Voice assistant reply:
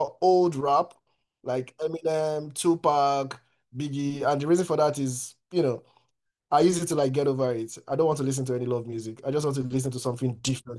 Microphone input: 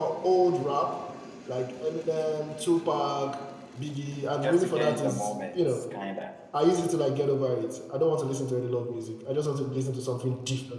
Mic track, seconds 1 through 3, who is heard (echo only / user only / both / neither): echo only